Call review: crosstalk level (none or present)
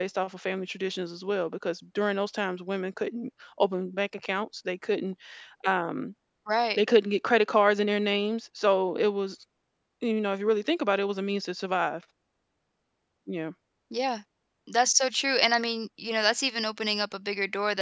none